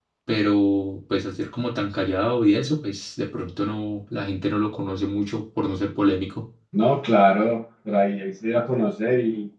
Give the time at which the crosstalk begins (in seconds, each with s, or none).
none